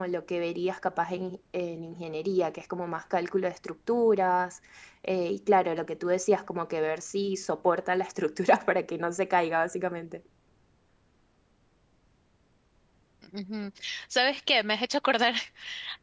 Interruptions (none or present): none